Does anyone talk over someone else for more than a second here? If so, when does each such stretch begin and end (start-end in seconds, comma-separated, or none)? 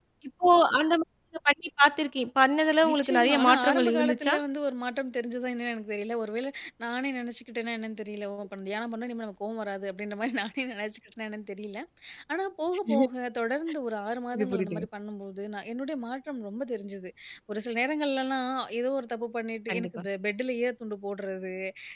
2.9-4.3